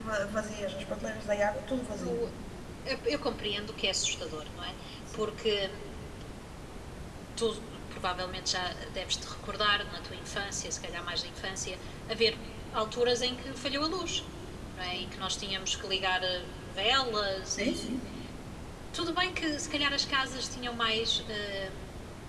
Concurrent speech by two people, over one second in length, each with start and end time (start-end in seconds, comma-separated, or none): none